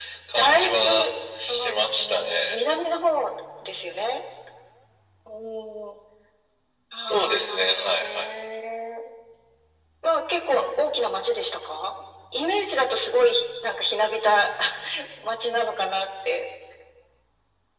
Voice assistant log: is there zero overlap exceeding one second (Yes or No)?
No